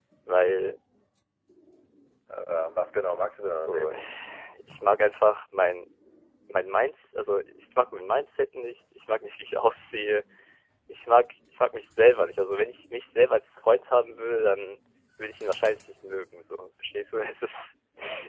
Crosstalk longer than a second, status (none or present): none